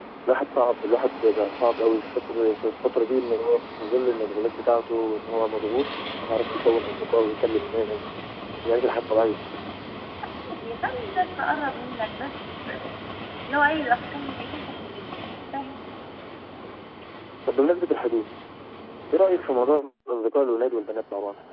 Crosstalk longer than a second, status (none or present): none